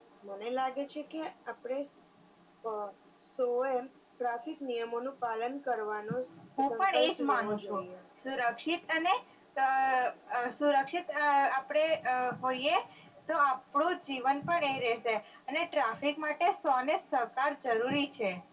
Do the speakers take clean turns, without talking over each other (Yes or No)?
No